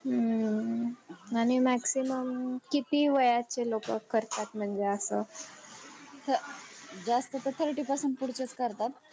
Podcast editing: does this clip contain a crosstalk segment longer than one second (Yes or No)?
No